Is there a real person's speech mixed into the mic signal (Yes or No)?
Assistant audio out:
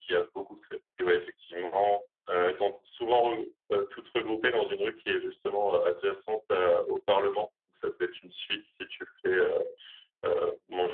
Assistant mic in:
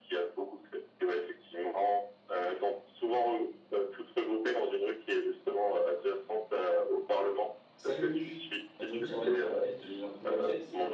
Yes